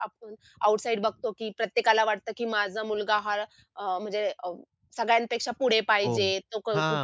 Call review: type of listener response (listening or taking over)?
taking over